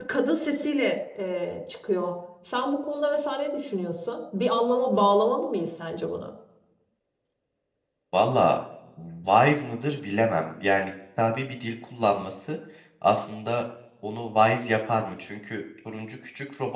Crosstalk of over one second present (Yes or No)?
No